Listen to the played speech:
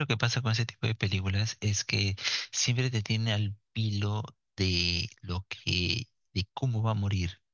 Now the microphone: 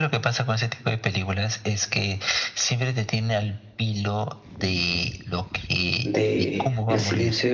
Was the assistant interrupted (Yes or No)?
Yes